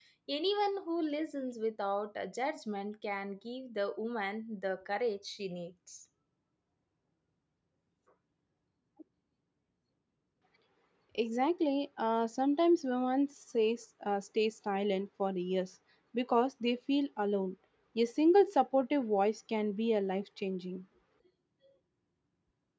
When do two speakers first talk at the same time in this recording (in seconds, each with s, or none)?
none